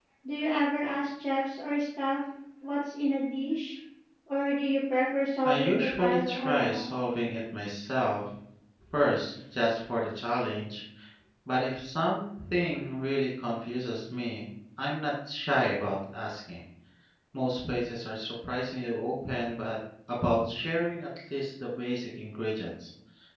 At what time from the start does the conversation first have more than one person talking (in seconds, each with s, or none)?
5.5 s